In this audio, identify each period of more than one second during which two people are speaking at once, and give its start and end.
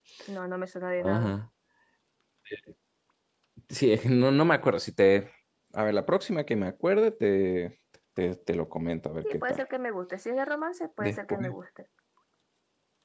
none

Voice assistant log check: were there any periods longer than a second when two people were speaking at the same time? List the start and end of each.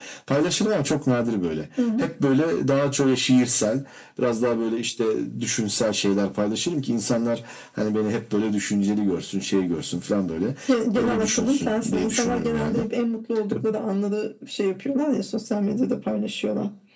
11.0-12.9

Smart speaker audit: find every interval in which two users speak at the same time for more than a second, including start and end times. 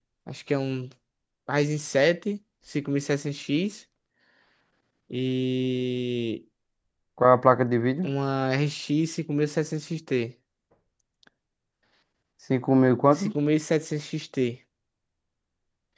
none

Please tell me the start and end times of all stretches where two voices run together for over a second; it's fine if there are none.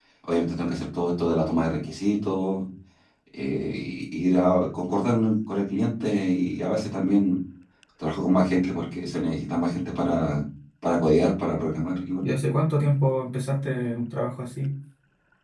none

